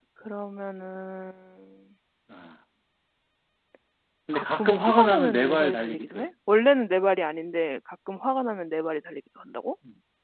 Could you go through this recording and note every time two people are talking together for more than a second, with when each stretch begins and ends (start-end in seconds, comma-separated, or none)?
4.3-6.2